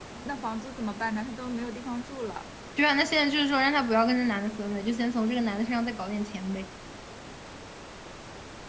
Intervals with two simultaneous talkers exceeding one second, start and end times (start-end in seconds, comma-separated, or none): none